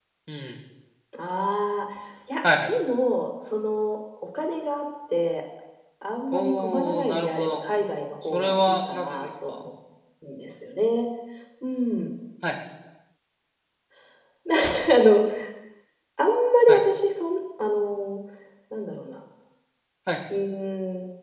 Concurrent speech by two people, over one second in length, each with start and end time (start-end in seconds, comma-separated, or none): 6.3-7.6, 8.3-9.6